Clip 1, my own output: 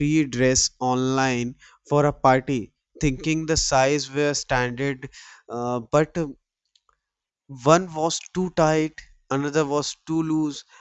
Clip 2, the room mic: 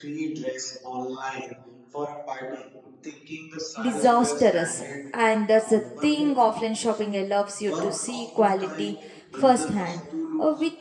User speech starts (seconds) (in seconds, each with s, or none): 3.8 s